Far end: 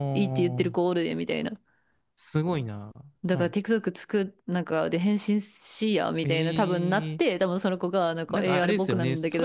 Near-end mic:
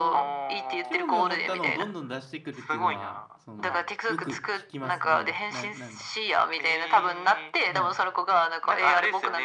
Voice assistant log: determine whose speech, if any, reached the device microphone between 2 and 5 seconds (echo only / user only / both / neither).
both